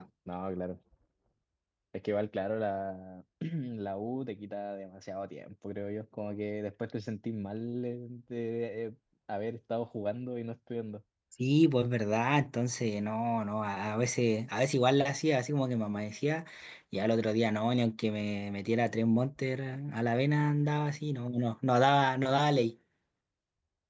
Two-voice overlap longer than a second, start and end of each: none

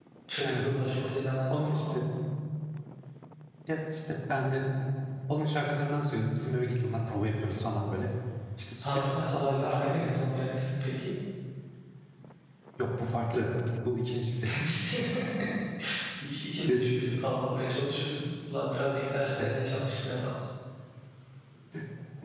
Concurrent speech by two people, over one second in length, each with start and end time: 8.8-10.4

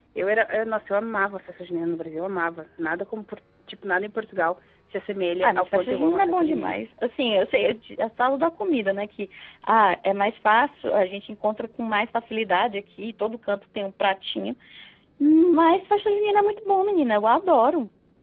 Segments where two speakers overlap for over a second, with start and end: 5.4-6.8

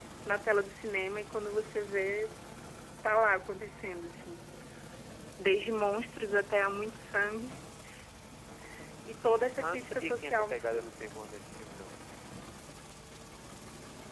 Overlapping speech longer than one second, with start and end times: 9.6-10.9

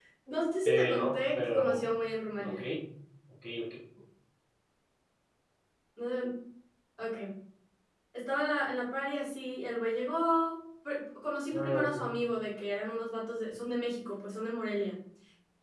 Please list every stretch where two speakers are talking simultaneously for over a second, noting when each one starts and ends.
0.7-1.9

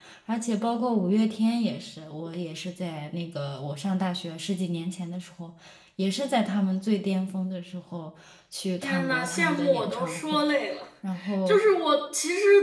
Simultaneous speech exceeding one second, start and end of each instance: 8.8-10.4

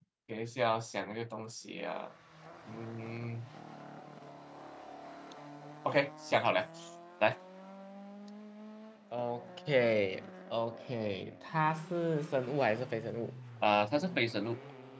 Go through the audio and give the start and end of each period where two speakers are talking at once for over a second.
none

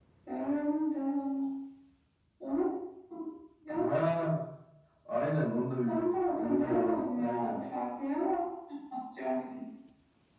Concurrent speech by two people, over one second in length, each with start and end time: 5.8-7.6

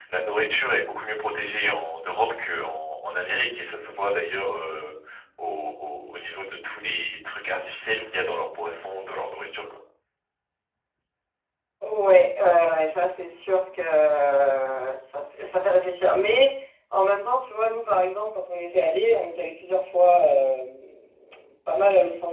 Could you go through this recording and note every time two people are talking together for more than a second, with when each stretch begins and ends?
none

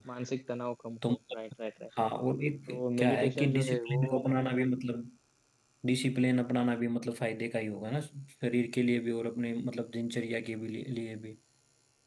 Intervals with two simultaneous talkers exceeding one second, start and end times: 2.7-4.0

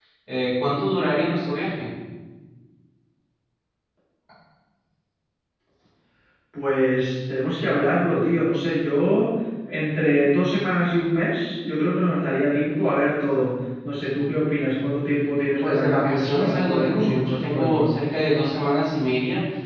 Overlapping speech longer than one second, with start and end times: 15.6-17.8

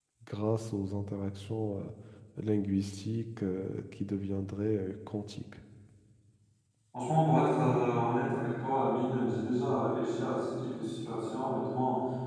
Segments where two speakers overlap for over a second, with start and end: none

